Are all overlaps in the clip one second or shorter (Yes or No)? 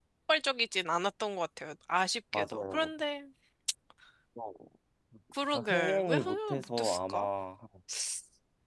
No